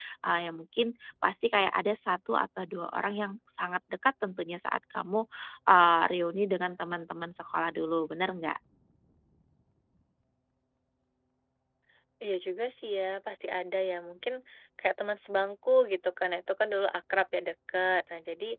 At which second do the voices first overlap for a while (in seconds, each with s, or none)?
none